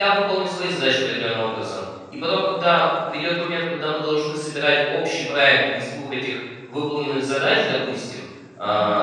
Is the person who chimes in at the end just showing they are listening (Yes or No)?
Yes